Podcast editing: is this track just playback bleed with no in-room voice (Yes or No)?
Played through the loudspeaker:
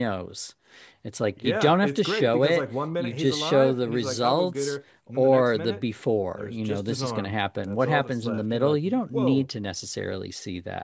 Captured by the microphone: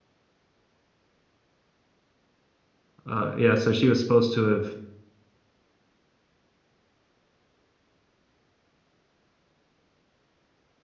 No